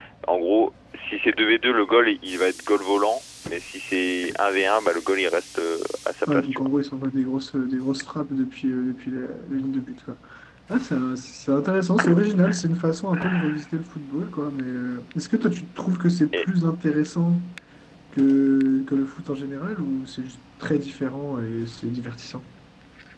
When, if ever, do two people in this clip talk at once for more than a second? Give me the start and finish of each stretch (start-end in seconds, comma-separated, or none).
none